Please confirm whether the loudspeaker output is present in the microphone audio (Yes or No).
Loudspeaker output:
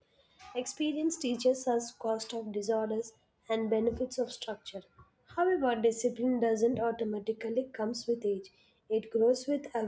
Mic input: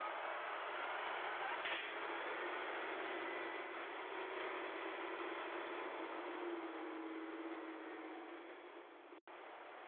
No